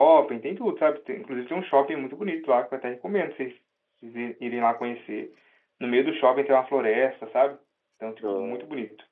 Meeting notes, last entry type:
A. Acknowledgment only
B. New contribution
A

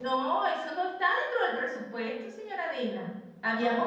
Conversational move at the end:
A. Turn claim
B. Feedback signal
B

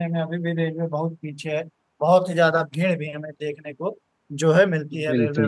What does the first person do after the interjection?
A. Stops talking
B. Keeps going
A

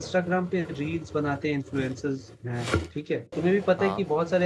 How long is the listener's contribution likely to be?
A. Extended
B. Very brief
B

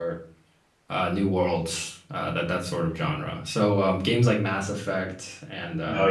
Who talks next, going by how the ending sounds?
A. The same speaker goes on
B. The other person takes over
A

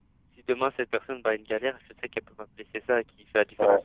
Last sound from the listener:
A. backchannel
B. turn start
A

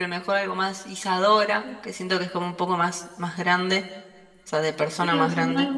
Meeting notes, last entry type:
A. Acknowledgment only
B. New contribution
B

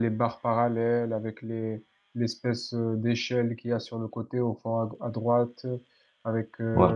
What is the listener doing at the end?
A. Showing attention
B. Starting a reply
A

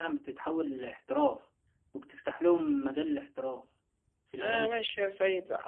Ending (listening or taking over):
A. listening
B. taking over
B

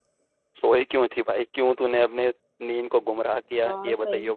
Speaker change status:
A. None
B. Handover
B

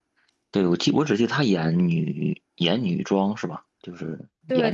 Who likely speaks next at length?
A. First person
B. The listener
B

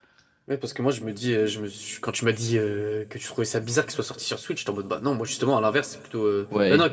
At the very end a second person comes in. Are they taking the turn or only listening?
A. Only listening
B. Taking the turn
B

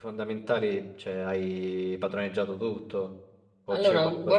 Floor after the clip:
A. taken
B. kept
A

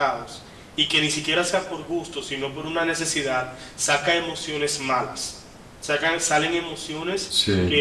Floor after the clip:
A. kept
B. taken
A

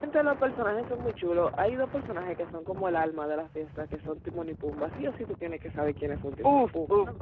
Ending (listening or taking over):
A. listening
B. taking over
B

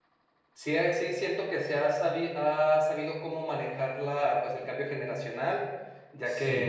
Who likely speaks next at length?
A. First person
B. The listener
A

